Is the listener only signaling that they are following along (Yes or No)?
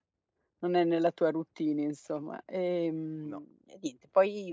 Yes